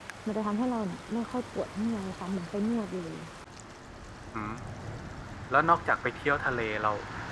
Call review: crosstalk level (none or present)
none